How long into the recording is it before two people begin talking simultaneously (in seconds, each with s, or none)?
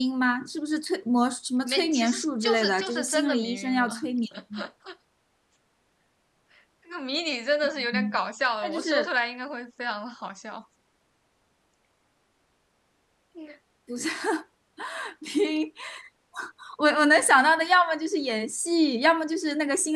1.6 s